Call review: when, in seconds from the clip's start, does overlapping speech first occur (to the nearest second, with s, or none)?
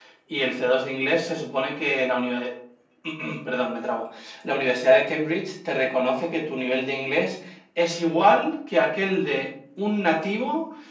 none